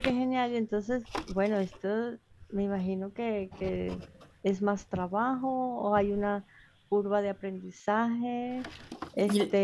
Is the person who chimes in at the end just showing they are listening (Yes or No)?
Yes